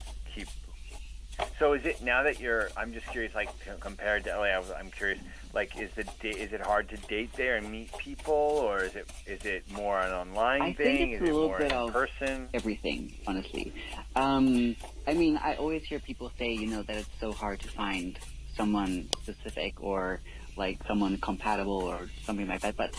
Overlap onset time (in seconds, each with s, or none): 10.6 s